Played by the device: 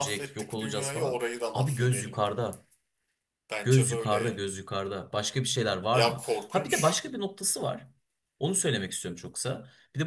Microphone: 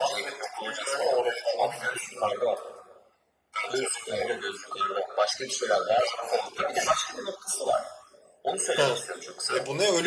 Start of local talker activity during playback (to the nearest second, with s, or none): 9 s